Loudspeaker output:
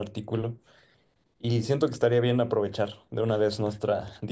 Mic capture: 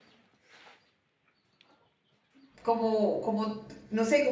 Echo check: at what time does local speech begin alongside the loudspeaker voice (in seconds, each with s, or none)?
2.6 s